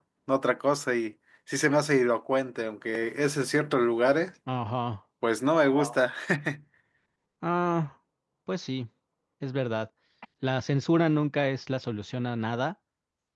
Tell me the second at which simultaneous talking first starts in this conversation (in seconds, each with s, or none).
none